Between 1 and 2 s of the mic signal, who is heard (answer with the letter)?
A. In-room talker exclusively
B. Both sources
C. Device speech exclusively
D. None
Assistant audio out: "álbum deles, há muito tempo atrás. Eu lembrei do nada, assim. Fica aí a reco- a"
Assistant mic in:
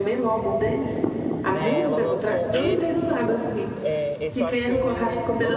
B